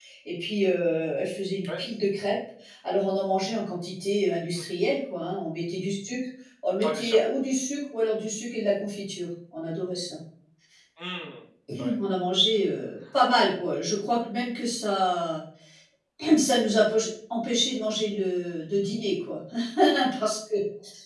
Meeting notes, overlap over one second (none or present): none